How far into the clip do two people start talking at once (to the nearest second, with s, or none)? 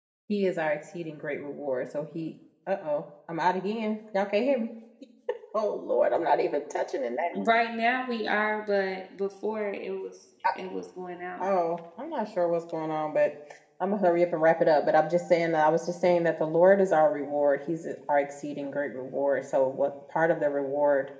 none